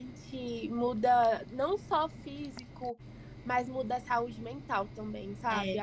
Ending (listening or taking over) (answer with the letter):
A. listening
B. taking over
A